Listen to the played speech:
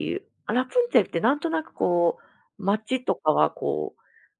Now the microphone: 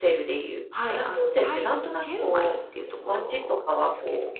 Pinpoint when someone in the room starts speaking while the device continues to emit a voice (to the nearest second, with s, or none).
1 s